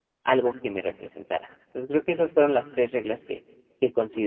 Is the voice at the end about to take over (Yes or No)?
Yes